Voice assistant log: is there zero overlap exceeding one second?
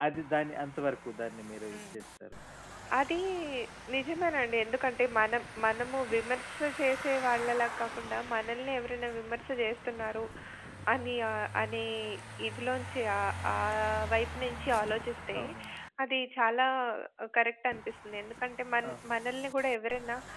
Yes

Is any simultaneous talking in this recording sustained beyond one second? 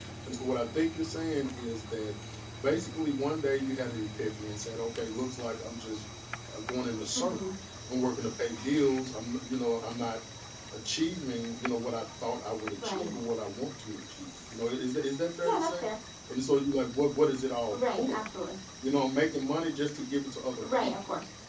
No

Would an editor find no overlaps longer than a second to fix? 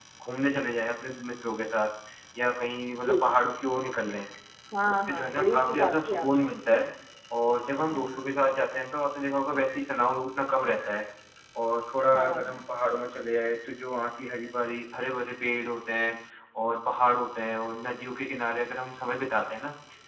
No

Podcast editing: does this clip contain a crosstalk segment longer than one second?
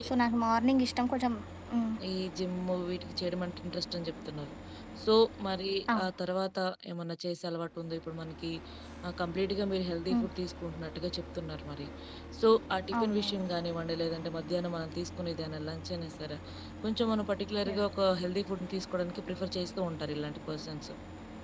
No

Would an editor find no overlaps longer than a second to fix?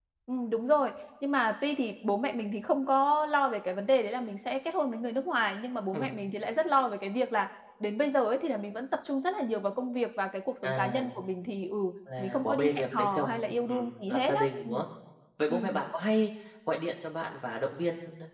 No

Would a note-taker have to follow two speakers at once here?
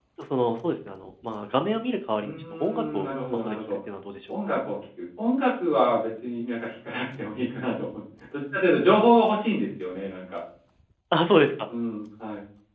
Yes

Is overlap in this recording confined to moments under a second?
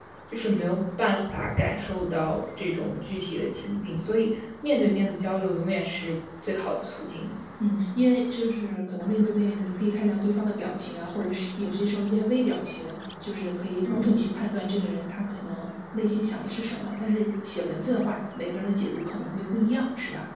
Yes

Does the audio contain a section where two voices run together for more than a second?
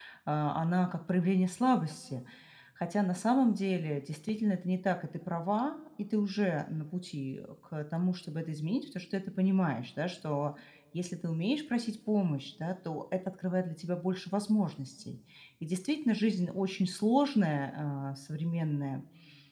No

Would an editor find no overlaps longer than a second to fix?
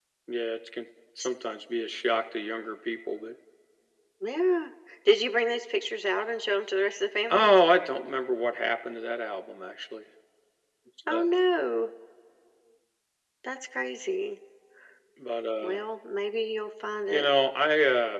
Yes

